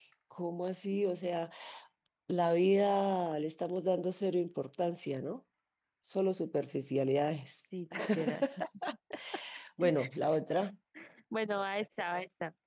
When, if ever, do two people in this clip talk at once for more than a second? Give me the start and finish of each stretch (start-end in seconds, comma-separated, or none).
none